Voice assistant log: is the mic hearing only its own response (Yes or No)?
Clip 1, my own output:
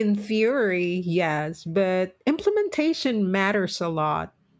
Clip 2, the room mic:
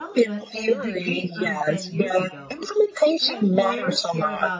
No